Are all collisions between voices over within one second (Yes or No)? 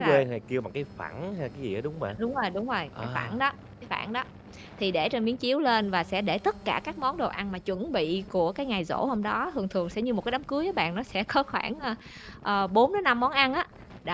Yes